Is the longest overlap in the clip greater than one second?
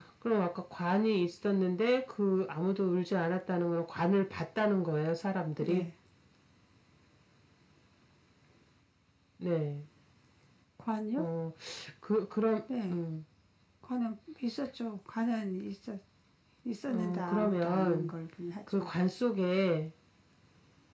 Yes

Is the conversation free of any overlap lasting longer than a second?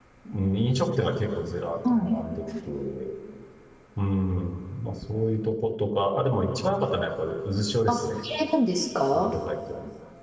Yes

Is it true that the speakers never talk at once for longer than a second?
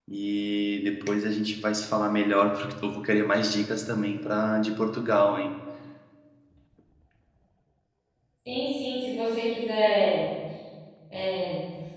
Yes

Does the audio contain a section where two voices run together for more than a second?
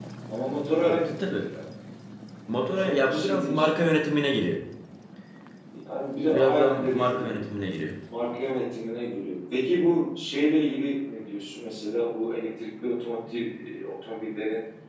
Yes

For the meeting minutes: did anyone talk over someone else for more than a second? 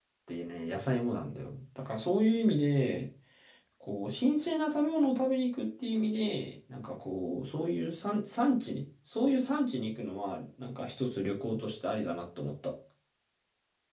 No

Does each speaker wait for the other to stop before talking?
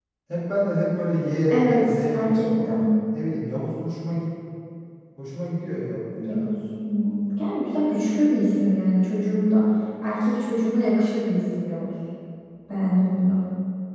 No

